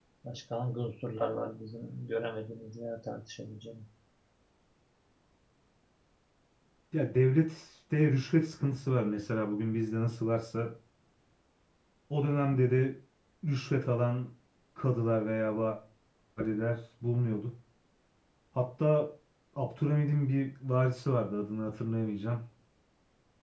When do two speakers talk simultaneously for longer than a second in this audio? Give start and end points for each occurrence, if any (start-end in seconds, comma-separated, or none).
none